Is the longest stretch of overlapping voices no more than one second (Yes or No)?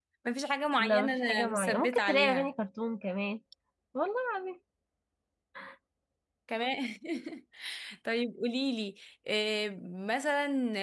No